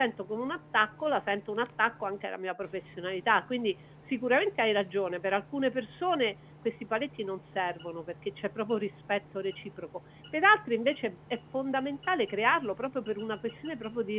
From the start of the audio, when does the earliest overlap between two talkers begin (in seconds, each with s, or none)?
none